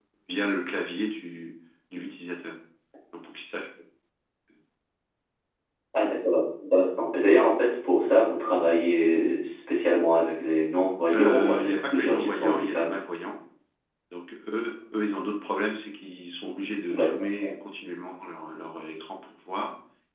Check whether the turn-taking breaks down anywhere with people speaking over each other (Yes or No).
Yes